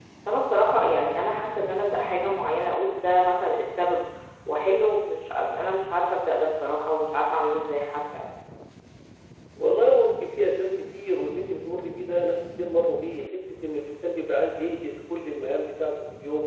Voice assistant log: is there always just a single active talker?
Yes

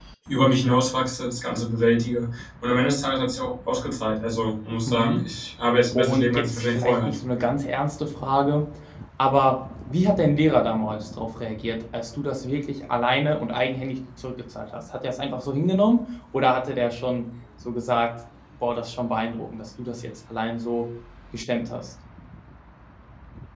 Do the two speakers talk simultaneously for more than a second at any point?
Yes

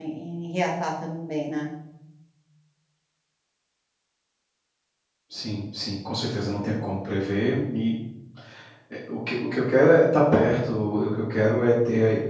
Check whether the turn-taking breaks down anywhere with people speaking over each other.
No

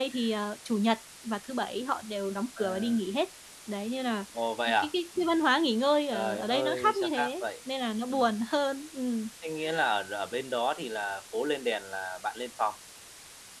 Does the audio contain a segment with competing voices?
Yes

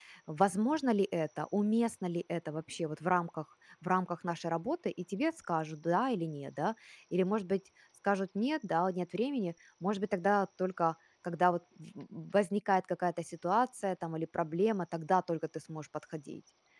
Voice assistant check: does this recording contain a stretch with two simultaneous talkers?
No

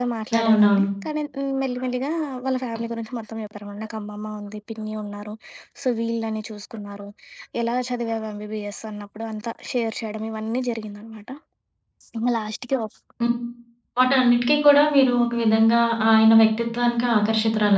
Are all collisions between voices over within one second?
Yes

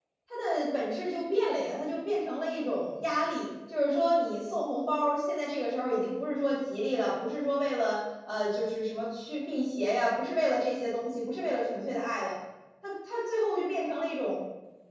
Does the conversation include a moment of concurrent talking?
No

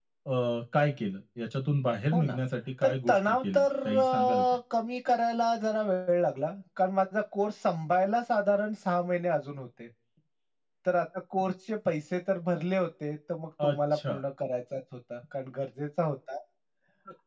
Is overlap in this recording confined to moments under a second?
No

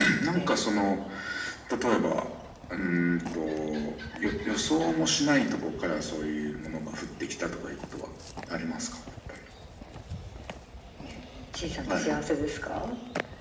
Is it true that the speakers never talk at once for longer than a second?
Yes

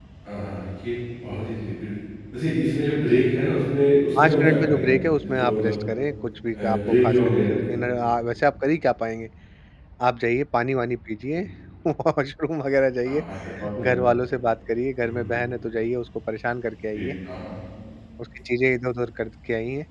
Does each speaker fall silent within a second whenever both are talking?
No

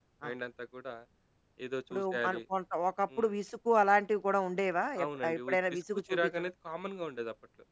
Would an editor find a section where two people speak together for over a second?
Yes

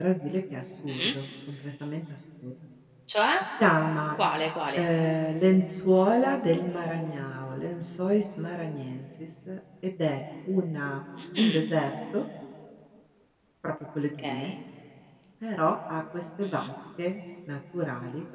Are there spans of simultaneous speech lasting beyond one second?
No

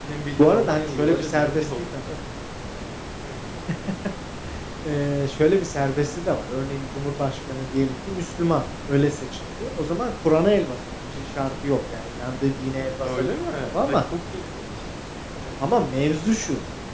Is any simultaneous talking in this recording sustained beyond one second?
Yes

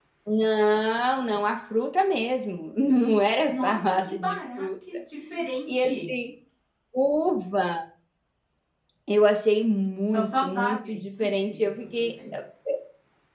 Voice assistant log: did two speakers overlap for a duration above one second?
Yes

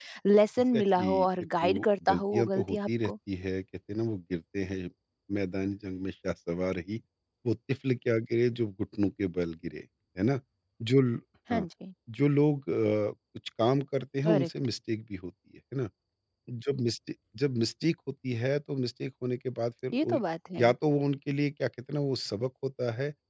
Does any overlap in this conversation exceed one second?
Yes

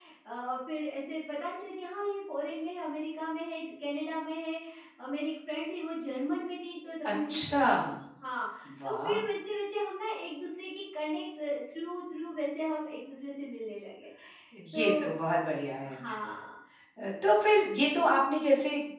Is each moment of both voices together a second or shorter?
Yes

